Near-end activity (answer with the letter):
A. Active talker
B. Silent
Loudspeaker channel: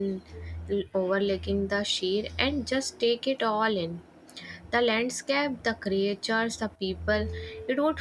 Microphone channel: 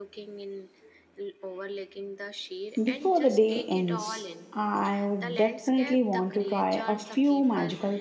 A